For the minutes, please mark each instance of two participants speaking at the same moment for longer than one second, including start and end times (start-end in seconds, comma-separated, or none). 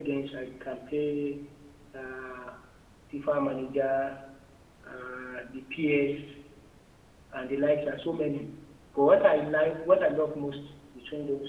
none